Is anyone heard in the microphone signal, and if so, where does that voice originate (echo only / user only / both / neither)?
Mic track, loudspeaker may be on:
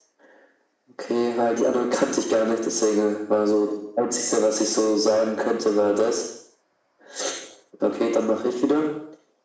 echo only